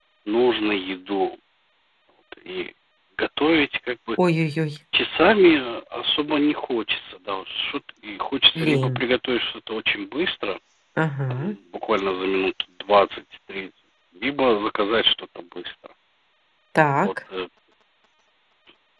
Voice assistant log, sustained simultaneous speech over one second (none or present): none